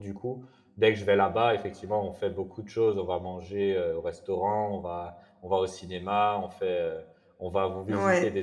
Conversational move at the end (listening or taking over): listening